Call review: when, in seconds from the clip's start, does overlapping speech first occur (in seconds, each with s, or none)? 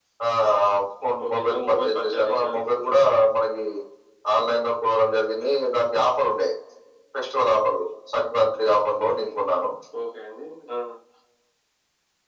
1.2 s